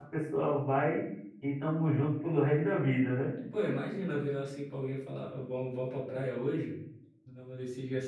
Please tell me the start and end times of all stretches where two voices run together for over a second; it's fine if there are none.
none

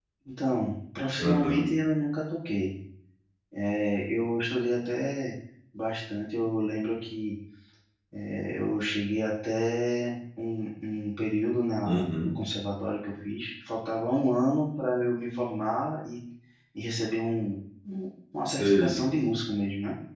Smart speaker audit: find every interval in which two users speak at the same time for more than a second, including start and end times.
none

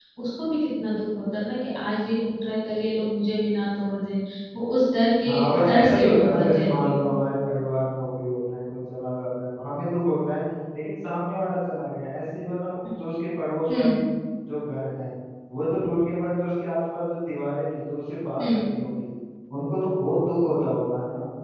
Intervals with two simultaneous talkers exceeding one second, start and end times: 5.2-7.1

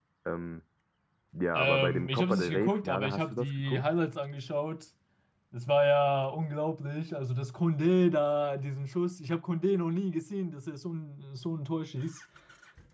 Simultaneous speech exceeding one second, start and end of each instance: 1.5-3.8

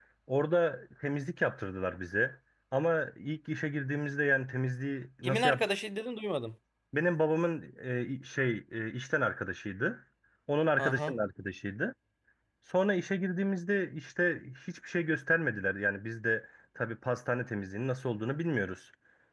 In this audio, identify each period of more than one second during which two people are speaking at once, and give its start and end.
none

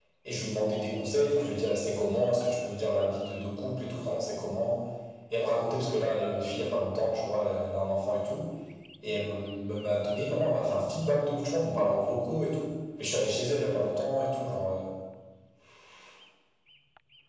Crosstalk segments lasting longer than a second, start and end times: none

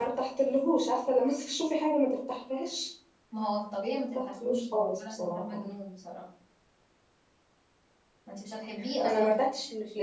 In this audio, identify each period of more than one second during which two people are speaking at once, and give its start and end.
3.9-5.6

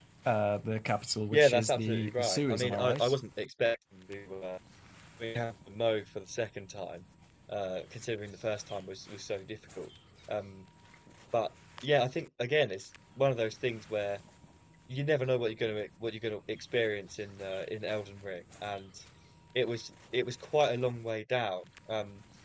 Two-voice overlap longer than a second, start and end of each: 1.3-3.1

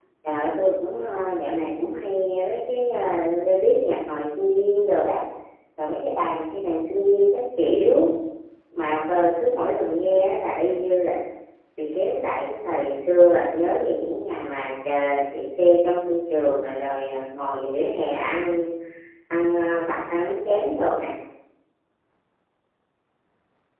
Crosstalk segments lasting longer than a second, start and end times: none

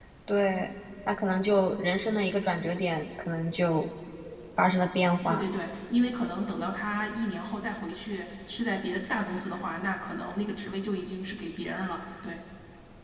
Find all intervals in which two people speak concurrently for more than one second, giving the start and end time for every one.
none

